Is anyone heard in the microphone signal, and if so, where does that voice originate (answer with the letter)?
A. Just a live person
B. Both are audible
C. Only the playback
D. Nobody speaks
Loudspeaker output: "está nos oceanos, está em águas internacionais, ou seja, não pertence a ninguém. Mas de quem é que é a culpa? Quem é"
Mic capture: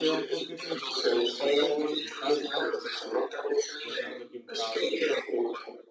B